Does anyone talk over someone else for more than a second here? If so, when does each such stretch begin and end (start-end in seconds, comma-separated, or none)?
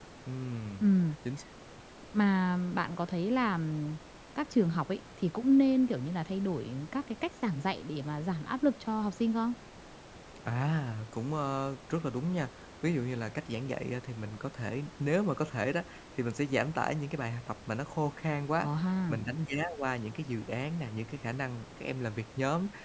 none